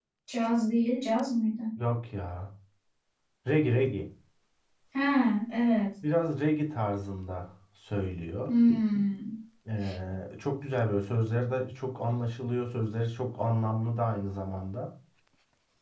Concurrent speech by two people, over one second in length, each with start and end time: none

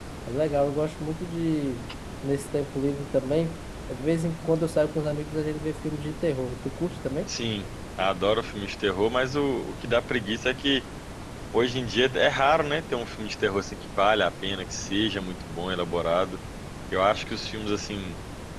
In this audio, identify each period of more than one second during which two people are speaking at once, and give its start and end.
none

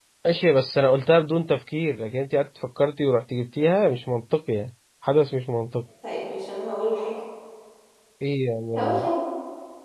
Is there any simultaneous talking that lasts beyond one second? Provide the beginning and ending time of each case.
none

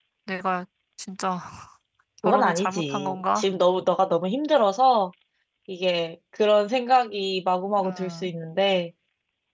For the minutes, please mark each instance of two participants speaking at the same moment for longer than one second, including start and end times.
2.2-3.5

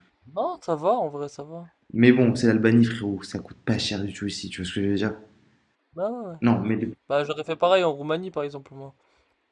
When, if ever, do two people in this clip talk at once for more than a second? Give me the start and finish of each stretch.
none

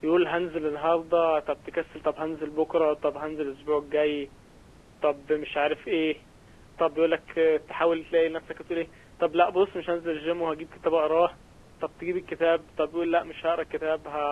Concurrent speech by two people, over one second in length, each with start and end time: none

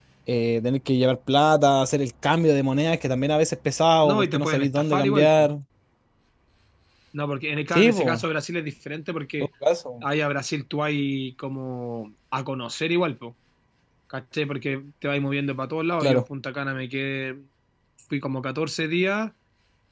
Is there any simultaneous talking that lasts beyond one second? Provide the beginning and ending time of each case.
4.0-5.5

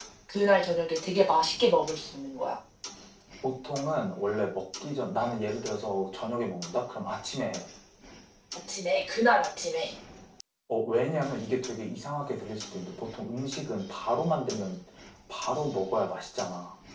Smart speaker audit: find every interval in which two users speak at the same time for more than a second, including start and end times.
none

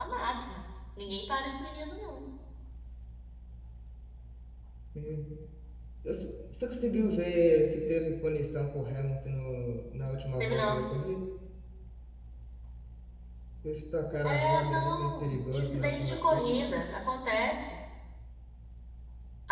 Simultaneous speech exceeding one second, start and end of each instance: 14.2-16.6

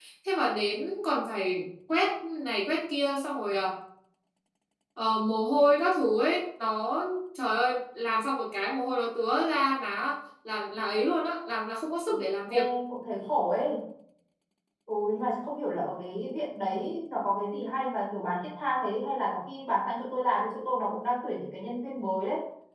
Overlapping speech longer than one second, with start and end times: none

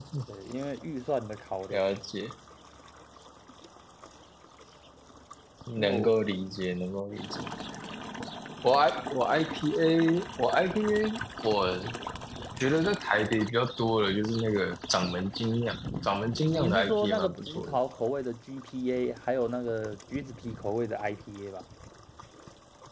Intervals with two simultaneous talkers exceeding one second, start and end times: 16.5-17.8

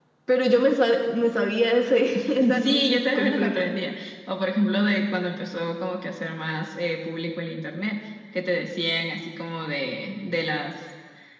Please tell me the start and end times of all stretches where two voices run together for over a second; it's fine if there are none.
2.2-3.6

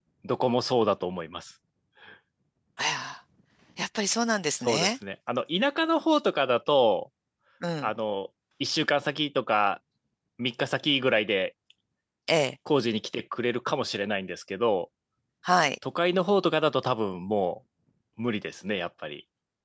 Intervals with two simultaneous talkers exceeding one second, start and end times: none

